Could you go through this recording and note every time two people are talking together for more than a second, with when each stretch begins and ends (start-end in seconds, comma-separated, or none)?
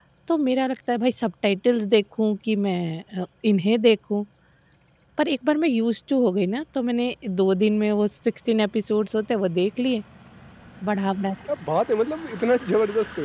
none